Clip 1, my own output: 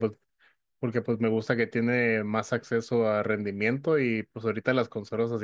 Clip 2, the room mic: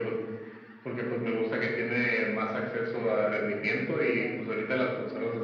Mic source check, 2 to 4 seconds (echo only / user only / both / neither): both